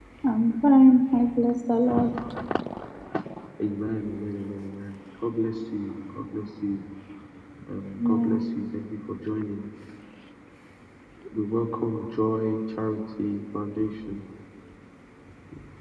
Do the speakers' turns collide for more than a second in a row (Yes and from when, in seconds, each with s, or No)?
No